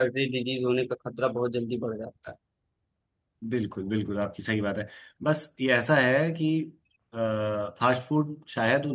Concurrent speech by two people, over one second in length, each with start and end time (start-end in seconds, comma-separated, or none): none